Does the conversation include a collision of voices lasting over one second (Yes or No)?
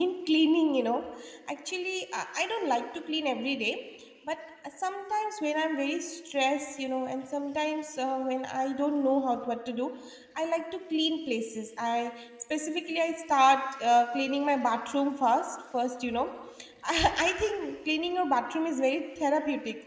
No